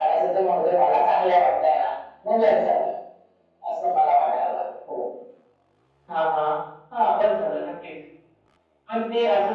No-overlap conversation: Yes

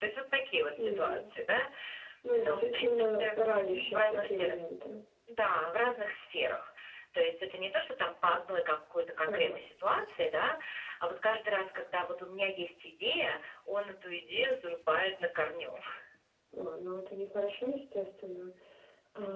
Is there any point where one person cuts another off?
Yes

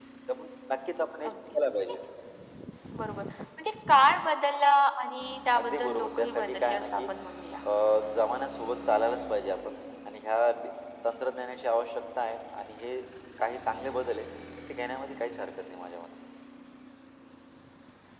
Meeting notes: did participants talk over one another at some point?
Yes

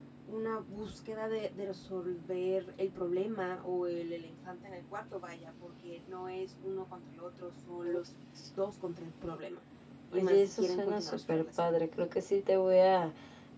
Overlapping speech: Yes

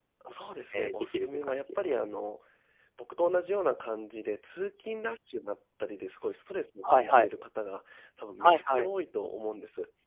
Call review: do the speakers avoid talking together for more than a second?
No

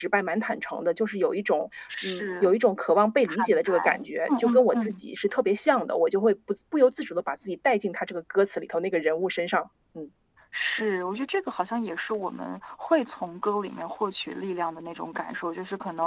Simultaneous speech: Yes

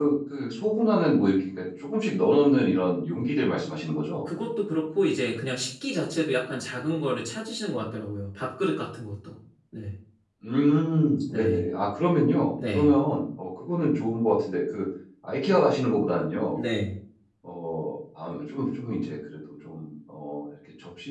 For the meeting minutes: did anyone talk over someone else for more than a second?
No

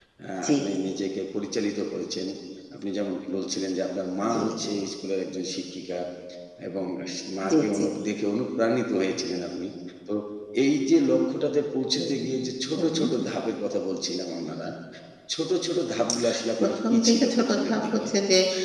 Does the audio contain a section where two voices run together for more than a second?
Yes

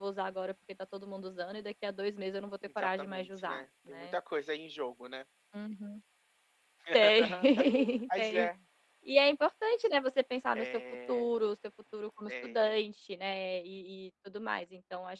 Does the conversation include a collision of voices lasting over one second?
Yes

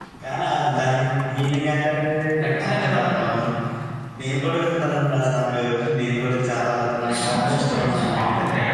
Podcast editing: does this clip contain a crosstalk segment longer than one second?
Yes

